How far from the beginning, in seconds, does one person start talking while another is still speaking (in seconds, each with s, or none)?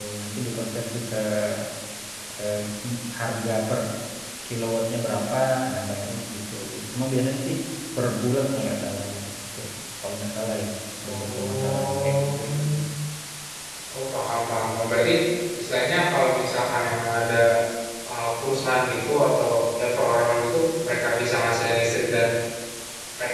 11.1 s